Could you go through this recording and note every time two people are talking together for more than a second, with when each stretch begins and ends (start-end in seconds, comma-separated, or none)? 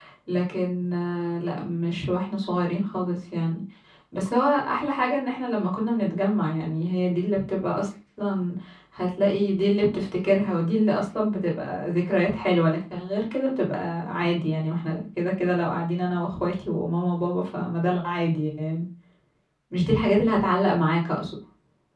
none